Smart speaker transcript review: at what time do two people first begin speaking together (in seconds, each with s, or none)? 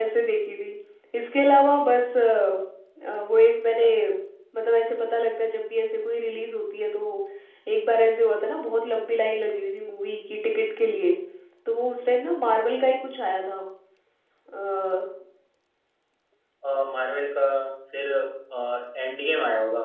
none